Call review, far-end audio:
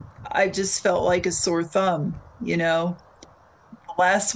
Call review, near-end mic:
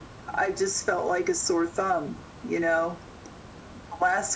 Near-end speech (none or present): none